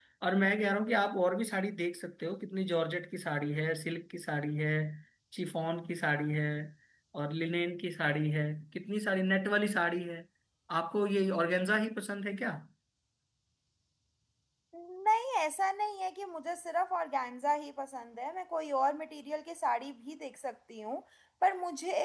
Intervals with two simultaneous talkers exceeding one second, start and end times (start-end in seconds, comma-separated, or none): none